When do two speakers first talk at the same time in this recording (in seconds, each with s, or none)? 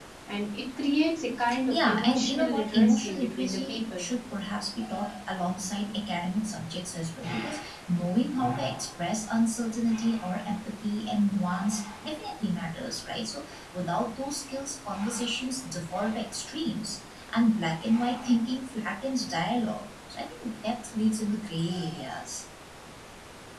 1.7 s